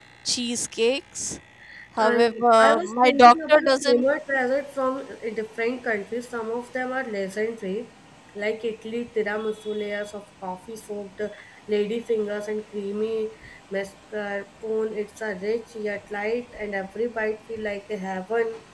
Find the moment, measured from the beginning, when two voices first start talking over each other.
2.0 s

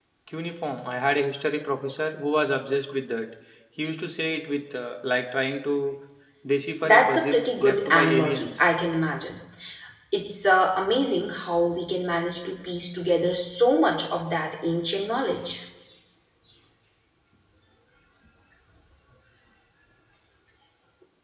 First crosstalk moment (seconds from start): 6.8 s

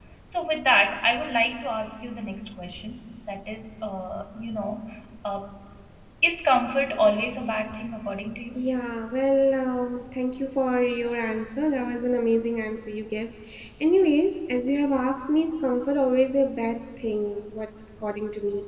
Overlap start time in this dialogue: none

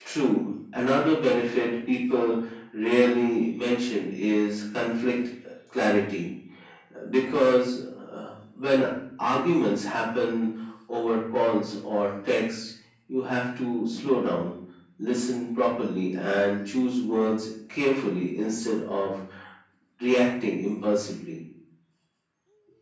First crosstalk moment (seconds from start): none

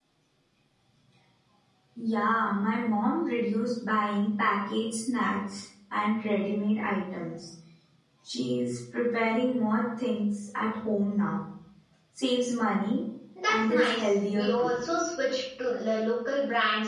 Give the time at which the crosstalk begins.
13.5 s

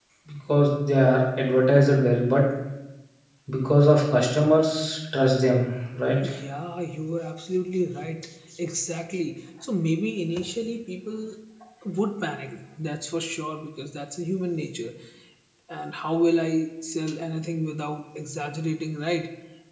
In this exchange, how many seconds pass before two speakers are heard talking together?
none

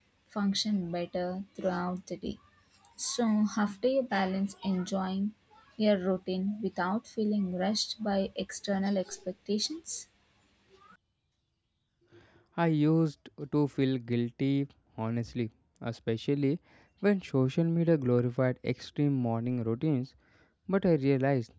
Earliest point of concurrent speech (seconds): none

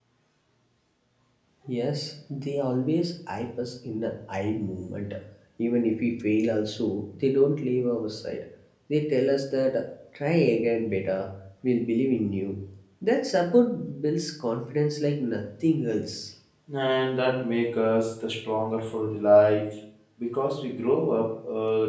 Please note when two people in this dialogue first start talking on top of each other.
none

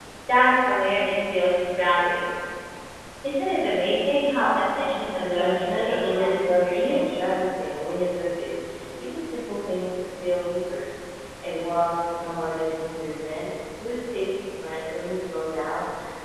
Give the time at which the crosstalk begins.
5.3 s

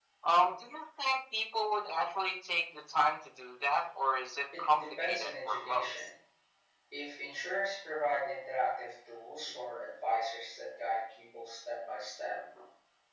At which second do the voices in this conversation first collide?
4.5 s

